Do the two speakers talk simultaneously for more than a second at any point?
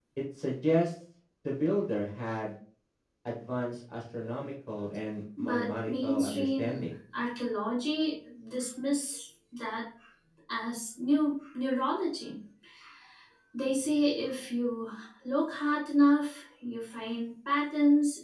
Yes, from 5.4 s

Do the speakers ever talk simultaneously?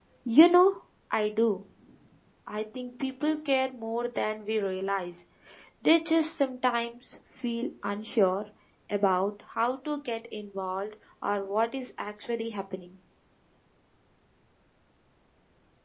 No

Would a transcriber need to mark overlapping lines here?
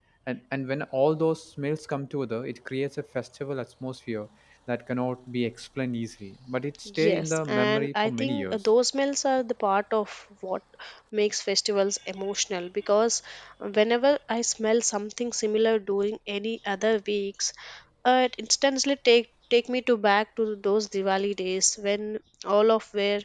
Yes, from 6.9 s

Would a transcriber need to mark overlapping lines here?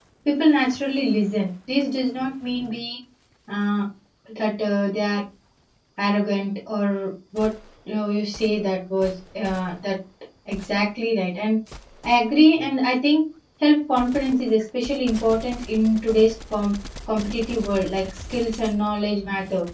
No

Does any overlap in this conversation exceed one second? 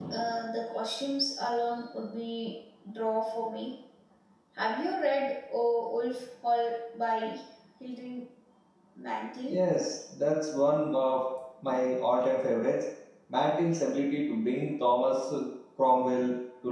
No

